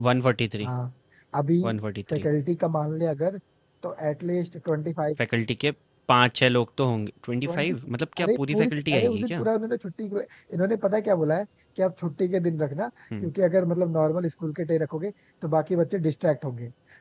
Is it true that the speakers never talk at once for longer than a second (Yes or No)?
No